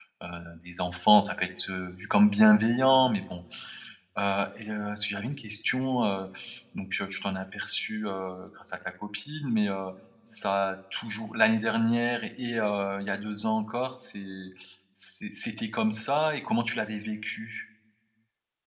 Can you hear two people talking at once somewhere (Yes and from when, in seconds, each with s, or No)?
No